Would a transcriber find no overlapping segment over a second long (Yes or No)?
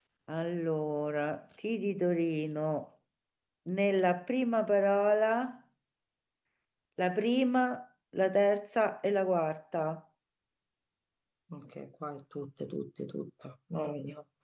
Yes